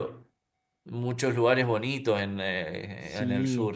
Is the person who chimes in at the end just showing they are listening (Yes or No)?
No